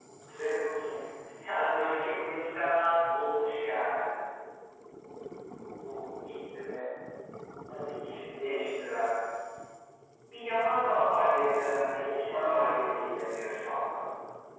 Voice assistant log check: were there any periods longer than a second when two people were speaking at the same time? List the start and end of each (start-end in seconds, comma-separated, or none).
11.9-13.1